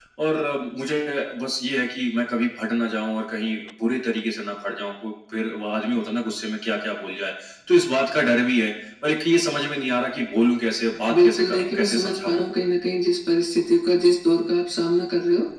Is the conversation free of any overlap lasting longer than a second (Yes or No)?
No